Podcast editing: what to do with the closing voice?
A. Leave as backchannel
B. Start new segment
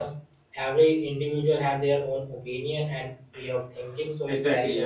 B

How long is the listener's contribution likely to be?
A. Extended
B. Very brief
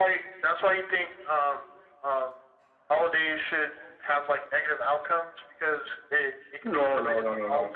A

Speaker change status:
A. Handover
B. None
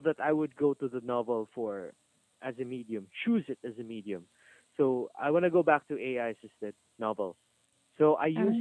B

